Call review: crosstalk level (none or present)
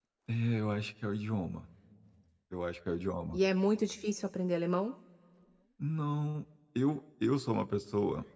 none